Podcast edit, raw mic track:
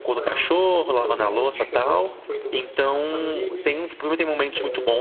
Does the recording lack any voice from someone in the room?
No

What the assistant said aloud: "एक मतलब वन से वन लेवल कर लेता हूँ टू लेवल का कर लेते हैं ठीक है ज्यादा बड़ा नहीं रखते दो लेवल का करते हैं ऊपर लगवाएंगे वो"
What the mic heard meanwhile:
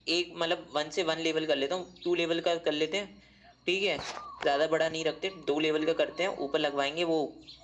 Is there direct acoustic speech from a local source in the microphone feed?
No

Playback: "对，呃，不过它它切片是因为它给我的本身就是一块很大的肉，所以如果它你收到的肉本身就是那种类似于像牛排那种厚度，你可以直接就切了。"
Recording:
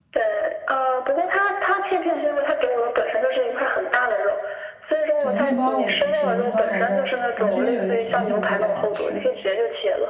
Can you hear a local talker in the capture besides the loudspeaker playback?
Yes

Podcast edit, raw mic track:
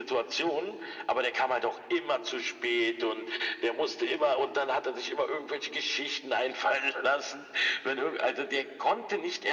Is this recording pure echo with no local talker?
Yes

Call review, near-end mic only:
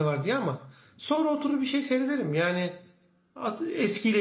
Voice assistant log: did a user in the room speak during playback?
Yes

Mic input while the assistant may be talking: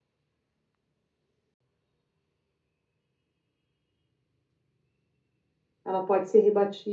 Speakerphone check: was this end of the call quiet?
No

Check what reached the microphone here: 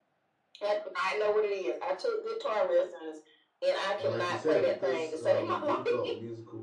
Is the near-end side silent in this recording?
No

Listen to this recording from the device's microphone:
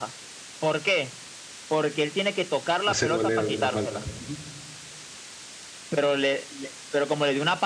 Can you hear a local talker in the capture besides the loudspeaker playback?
Yes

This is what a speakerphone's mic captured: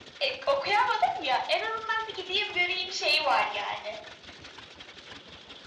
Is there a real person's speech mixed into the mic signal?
No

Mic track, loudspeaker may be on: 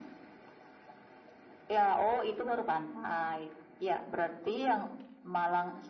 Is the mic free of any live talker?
Yes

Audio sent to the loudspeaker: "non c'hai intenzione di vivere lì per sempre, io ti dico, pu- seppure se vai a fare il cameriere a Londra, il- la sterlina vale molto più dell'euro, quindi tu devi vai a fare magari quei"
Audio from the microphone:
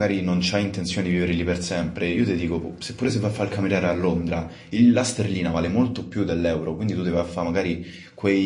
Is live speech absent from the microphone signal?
Yes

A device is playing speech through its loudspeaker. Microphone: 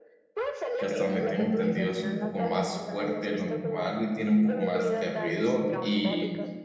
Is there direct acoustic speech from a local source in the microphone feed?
Yes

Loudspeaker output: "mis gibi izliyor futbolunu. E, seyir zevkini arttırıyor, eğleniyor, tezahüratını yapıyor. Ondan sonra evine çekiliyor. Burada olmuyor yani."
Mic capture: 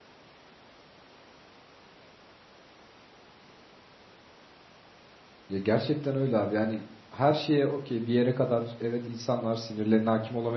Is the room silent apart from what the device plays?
No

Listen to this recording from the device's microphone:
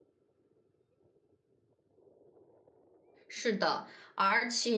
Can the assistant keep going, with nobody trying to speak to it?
No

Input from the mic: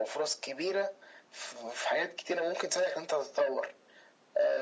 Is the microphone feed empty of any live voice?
Yes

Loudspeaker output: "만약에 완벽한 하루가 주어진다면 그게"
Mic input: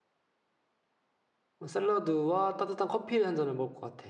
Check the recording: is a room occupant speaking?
Yes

